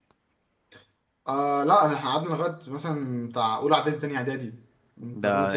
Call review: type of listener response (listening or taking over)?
taking over